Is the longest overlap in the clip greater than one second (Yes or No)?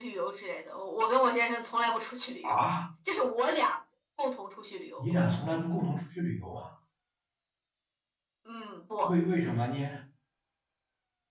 No